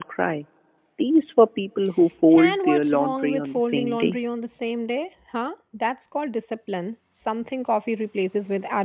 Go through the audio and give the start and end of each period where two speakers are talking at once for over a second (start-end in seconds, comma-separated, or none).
2.4-4.2